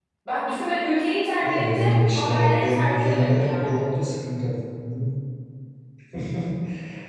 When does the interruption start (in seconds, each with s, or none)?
1.4 s